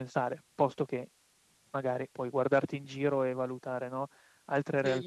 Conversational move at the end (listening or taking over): taking over